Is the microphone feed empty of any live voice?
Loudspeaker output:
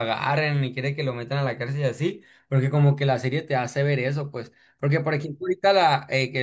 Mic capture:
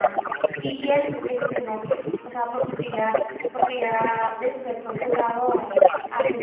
No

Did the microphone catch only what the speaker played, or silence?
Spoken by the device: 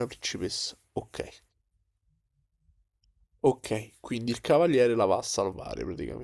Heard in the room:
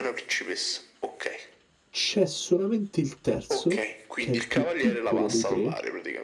No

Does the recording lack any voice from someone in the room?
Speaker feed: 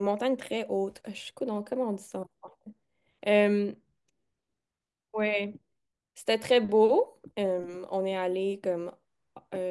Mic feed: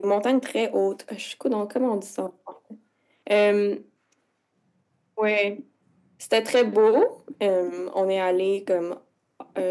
Yes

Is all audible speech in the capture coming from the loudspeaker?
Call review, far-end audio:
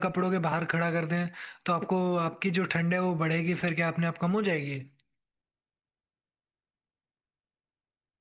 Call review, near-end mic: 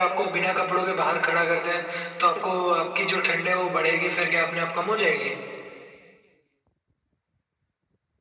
Yes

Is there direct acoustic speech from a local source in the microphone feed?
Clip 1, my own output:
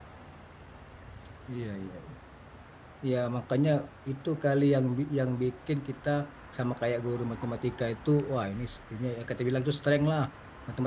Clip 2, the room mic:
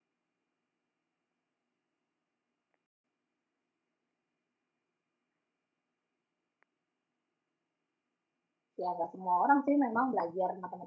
Yes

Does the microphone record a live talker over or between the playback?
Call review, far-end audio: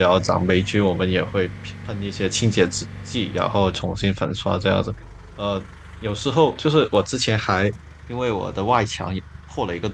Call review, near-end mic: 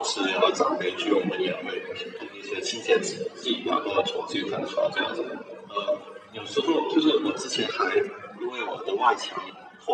No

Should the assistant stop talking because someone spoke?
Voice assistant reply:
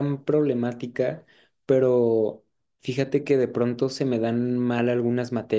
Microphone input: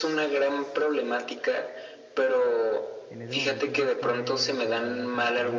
Yes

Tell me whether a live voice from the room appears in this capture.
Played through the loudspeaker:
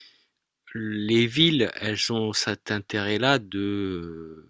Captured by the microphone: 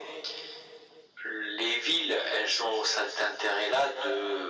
No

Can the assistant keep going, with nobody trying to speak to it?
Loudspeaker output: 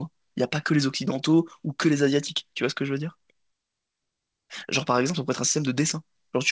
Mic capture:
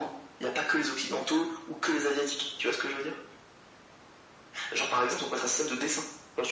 Yes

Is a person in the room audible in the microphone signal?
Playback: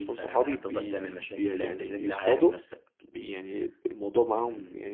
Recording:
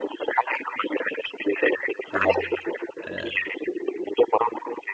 Yes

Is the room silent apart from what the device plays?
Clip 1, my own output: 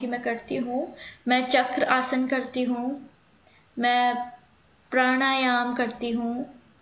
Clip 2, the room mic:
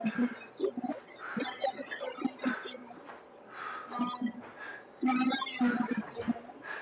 Yes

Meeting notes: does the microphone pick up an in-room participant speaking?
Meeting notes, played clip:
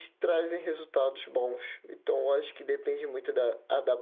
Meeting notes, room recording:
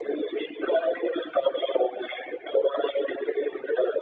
No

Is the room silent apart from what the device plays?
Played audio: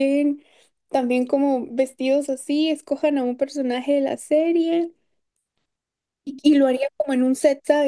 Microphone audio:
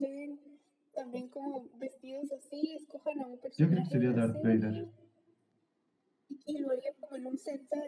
No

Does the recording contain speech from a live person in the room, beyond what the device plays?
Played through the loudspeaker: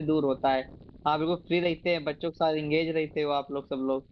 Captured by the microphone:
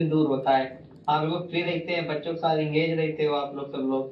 No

